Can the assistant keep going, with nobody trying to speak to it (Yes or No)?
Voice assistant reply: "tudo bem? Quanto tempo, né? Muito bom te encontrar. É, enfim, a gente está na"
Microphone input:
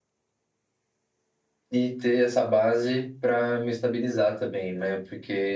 No